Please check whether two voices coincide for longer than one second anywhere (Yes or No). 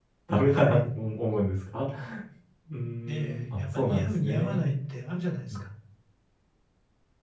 Yes